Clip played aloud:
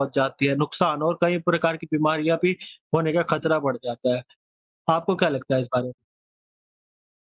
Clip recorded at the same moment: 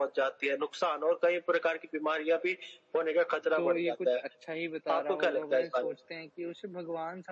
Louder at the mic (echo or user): echo